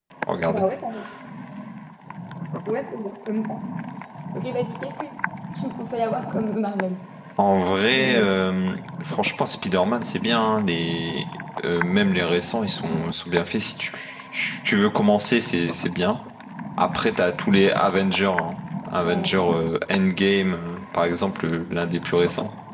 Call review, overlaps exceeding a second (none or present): none